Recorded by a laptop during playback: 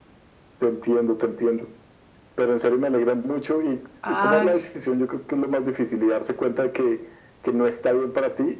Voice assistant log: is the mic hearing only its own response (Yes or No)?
No